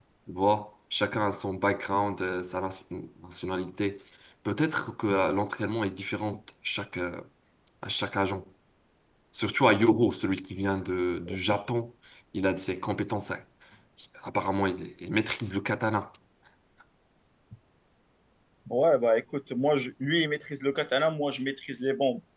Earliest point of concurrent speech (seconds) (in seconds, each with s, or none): none